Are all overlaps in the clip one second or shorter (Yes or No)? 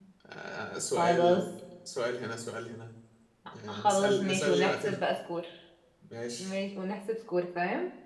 No